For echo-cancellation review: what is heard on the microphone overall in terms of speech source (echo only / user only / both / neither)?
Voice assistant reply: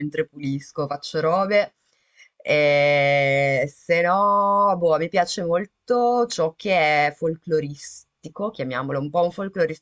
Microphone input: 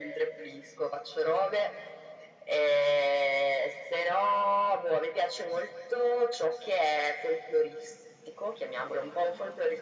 echo only